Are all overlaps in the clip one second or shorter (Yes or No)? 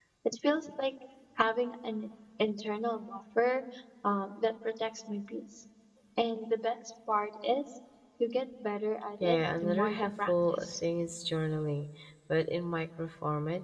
No